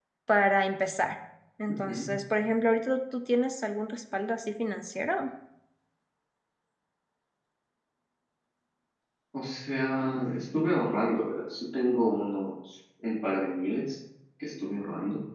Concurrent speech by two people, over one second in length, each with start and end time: none

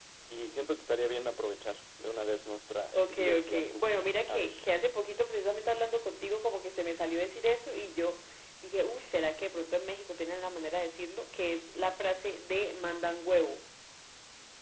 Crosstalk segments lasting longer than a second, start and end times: 2.9-4.5

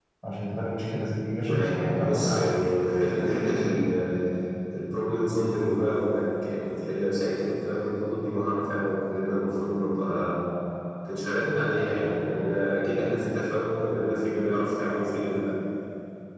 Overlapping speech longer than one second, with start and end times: 1.4-2.7

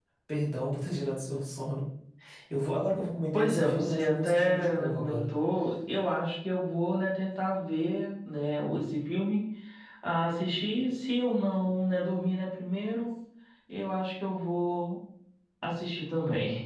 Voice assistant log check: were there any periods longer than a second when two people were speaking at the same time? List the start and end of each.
3.3-5.2

